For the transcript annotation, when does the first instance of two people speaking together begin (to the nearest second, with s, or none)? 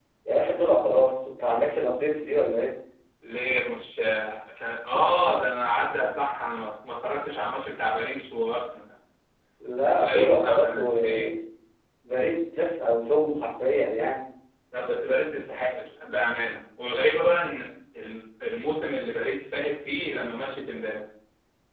10 s